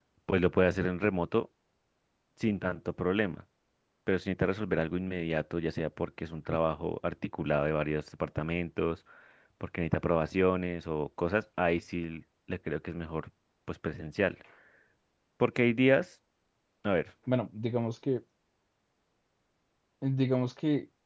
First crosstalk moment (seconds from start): none

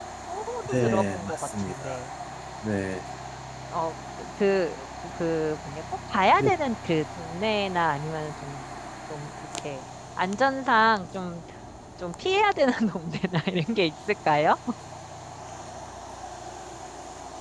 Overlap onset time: 0.7 s

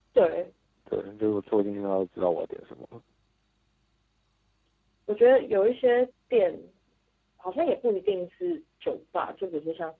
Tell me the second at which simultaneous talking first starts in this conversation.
none

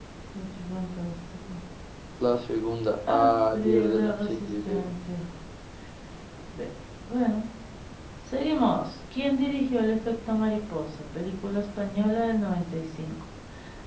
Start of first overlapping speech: 3.1 s

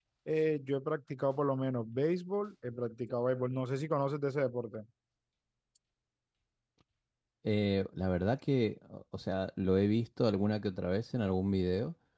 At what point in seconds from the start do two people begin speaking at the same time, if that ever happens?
none

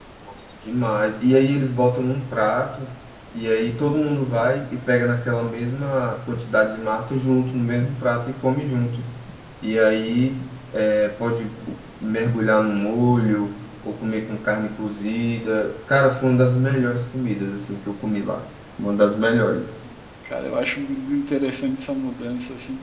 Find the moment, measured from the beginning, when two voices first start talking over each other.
none

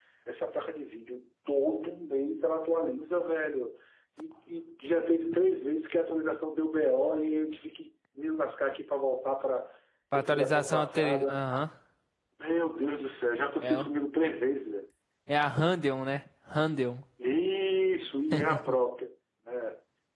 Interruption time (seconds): 10.1 s

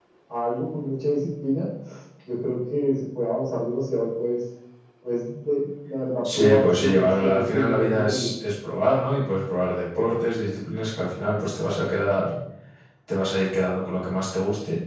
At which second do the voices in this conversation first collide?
6.2 s

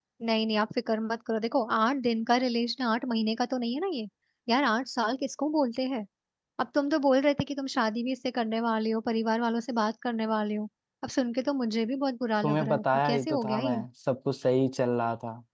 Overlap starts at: 12.4 s

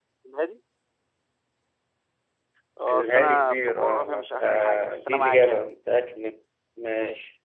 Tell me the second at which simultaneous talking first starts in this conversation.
2.9 s

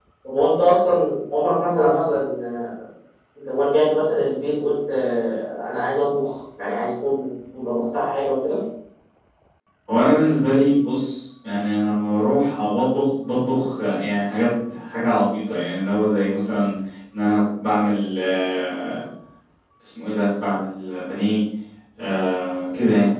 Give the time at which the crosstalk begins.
none

